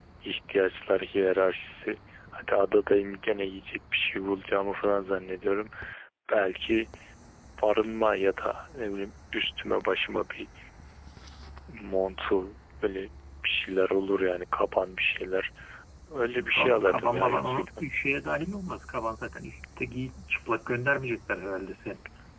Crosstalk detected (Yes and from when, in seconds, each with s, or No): Yes, from 16.4 s